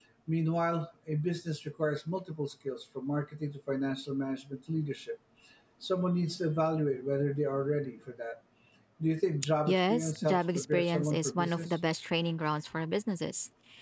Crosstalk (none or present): present